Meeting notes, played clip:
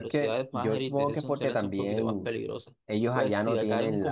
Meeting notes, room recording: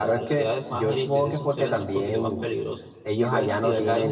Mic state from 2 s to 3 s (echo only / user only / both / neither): echo only